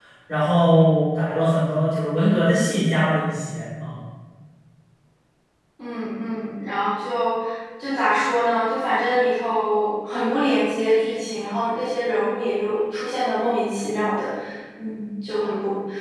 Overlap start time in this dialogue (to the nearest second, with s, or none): none